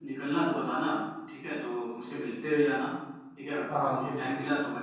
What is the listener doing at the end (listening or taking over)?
listening